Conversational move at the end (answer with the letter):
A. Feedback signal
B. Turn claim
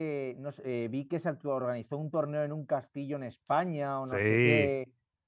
A